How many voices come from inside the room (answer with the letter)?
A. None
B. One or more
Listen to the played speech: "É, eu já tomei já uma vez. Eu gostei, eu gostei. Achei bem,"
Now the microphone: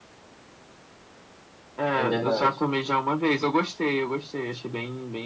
B